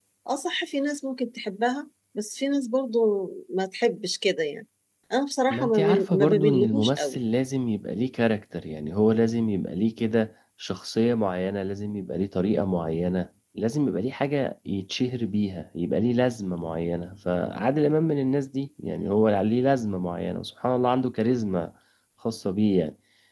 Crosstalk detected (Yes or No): Yes